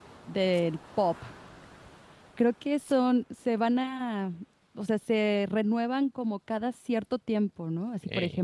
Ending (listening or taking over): listening